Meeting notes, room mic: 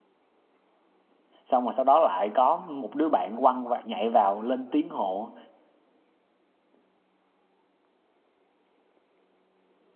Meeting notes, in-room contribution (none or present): present